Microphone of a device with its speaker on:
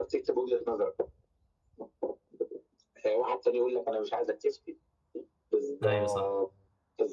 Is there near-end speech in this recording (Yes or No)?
Yes